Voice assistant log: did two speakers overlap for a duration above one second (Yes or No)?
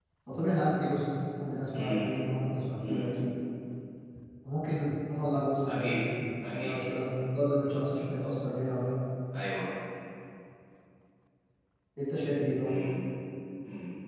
No